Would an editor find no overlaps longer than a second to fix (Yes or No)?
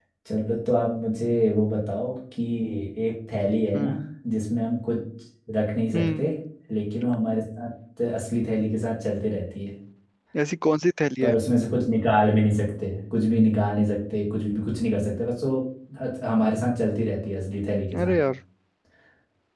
Yes